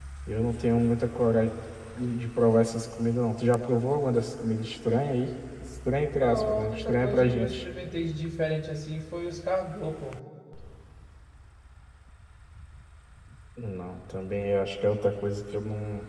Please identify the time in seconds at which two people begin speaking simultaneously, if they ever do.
6.2 s

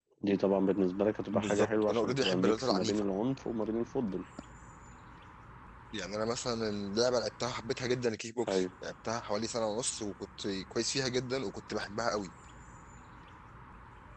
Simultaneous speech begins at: 1.3 s

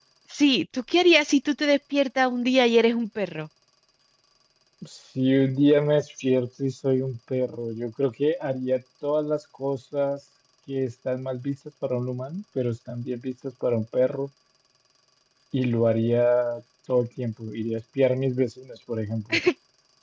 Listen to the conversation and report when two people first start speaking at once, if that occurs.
none

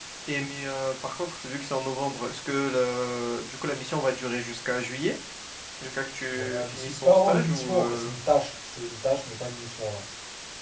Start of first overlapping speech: 6.3 s

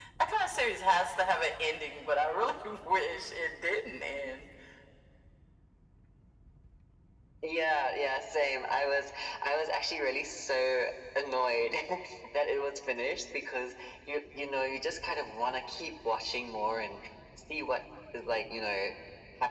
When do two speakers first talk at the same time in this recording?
none

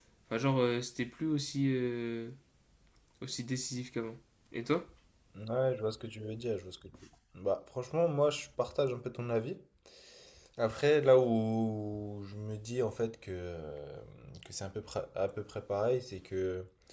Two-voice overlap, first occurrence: none

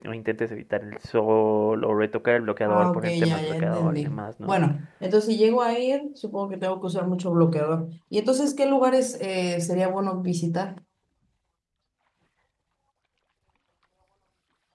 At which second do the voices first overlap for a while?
2.7 s

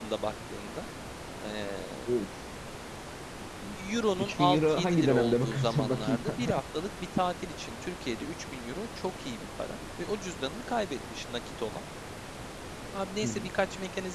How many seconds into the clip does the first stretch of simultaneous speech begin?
4.2 s

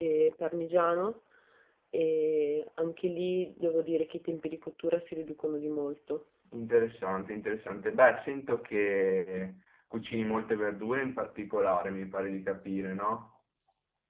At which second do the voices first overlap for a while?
none

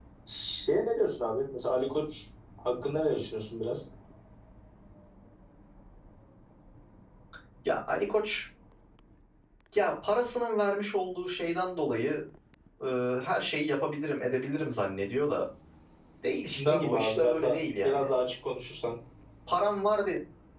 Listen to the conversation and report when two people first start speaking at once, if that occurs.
16.5 s

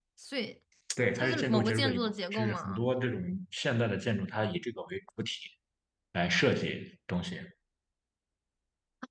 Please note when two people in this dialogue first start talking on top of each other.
1.2 s

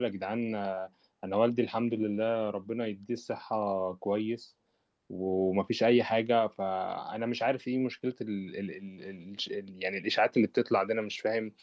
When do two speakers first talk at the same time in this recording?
none

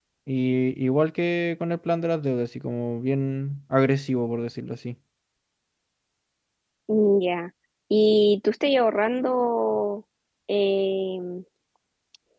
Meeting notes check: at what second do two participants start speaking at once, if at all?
none

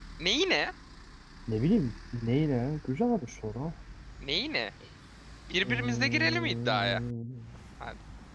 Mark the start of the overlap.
5.6 s

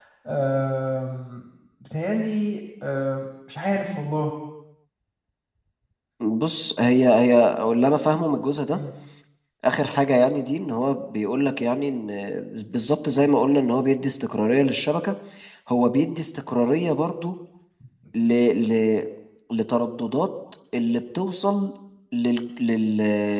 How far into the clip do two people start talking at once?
none

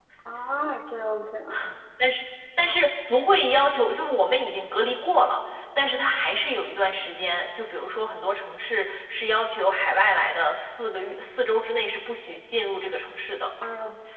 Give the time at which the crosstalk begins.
none

